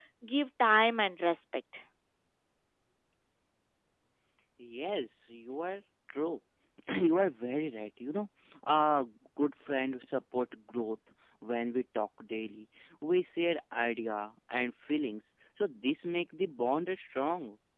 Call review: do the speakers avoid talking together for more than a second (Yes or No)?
Yes